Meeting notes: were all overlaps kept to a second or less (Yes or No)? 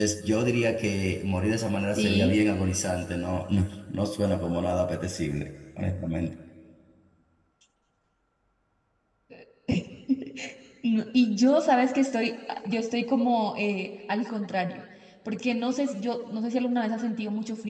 Yes